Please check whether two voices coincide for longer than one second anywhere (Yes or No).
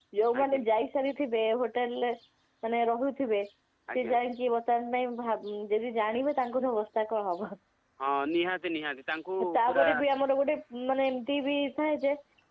No